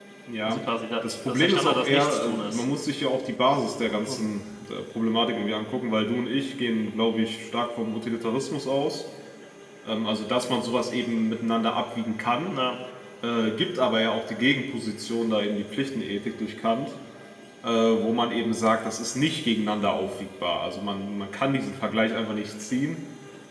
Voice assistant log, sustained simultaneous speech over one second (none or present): present